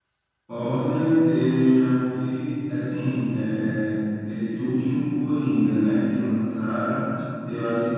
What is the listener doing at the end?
listening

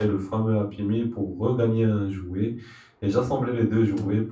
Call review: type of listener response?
listening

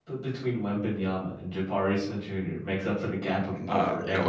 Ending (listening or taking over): taking over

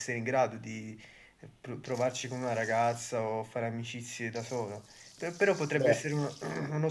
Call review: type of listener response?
listening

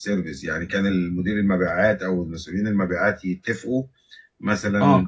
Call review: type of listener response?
listening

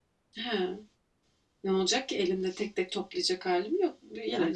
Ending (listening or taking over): taking over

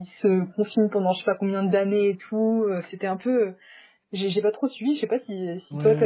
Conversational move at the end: taking over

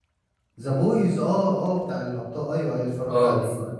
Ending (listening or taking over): taking over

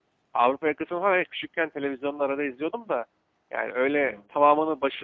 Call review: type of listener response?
listening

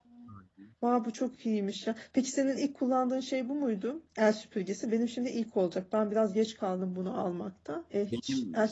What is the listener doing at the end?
listening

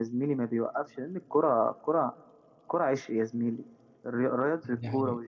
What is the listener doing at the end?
listening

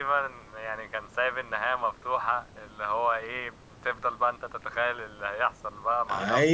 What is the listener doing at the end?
taking over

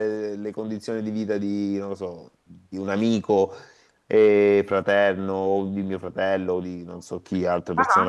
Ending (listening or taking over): listening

